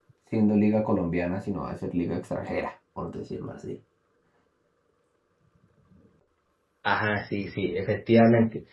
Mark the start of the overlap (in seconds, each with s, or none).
none